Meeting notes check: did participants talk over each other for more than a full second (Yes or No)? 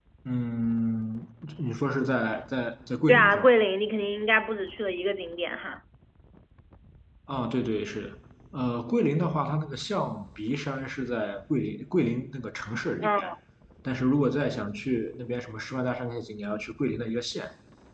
No